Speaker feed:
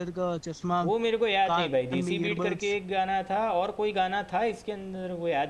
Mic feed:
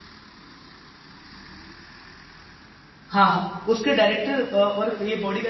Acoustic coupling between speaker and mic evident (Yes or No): No